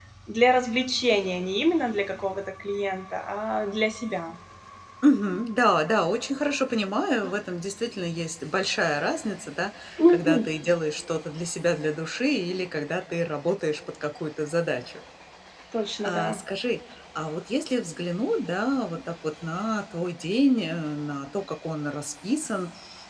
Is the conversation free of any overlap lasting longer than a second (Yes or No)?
Yes